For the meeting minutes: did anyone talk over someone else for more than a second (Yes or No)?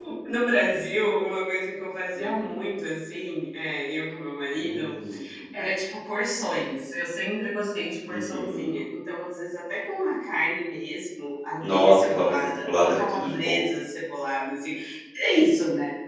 Yes